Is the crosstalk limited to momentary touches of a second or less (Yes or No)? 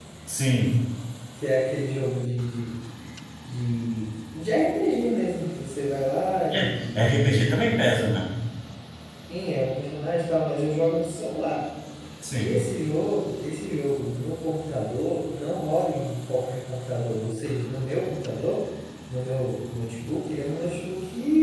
No